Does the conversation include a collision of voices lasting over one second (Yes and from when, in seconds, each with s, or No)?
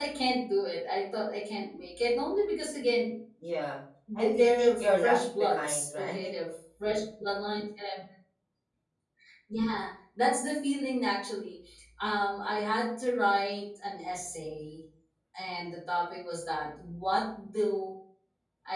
Yes, from 4.2 s